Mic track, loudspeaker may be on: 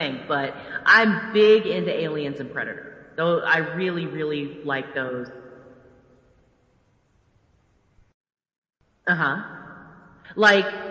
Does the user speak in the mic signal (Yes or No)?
No